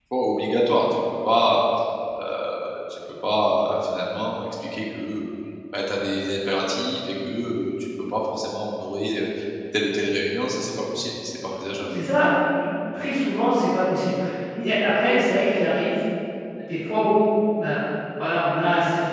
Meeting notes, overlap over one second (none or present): none